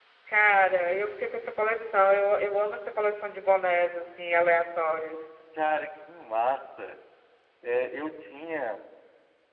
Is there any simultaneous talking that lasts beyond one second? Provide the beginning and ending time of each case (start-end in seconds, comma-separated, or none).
none